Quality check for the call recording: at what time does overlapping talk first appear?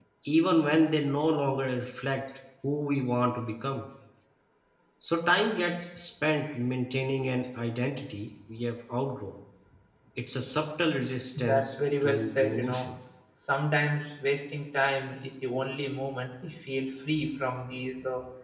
11.3 s

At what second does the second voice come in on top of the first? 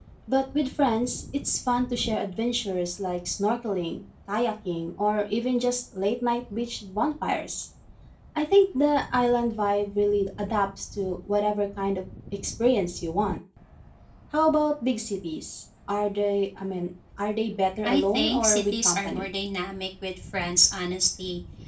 17.8 s

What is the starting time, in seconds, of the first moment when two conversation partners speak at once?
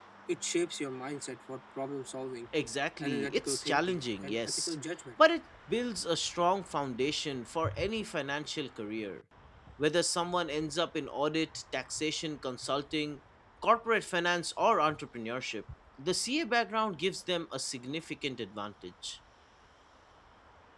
3.0 s

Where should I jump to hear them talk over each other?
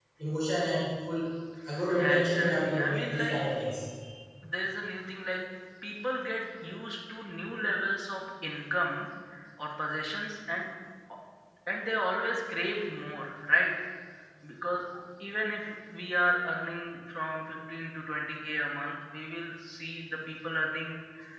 2.0 s

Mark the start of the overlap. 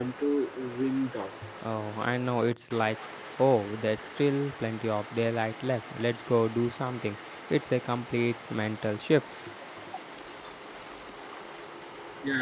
none

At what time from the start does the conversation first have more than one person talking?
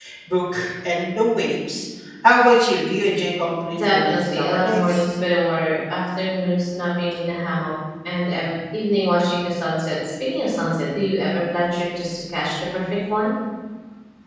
3.7 s

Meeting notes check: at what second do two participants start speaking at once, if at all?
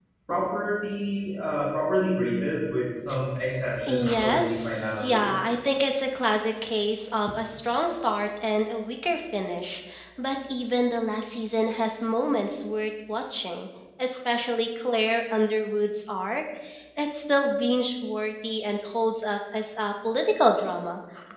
3.9 s

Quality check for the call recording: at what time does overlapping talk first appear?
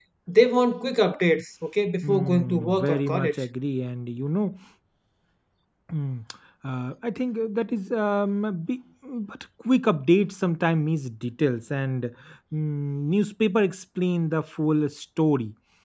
2.0 s

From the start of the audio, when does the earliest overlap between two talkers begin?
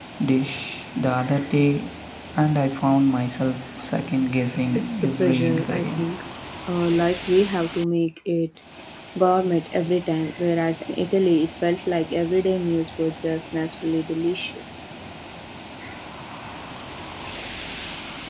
4.8 s

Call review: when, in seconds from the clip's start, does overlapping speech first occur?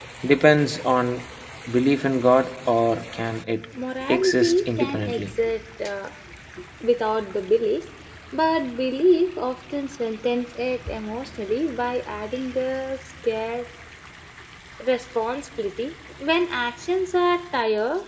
4.1 s

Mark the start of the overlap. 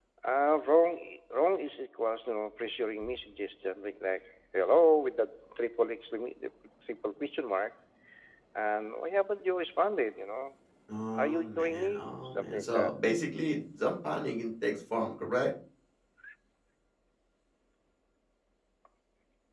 11.2 s

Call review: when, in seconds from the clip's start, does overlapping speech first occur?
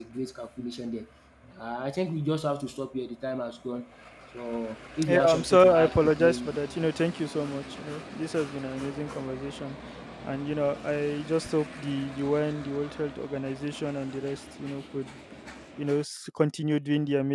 5.1 s

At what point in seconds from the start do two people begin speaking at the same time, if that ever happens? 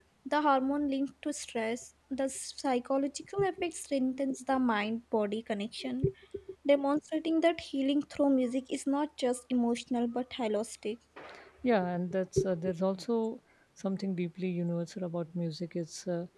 none

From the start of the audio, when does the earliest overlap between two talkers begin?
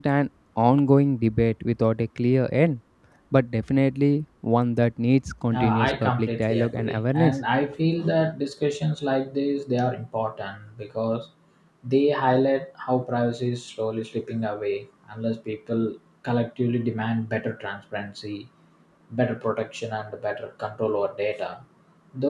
5.5 s

